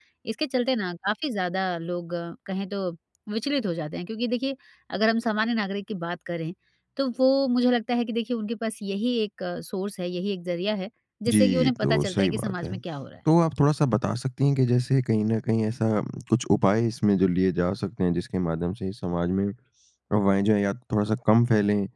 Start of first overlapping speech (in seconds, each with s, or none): 11.3 s